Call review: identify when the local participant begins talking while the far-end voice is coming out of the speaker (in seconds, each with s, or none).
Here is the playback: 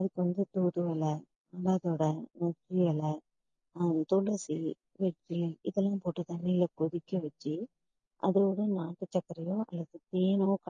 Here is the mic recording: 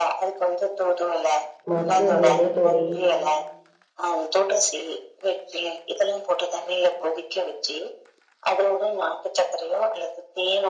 1.7 s